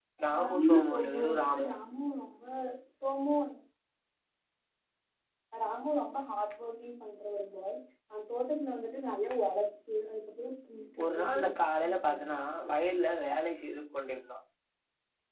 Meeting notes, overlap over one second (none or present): present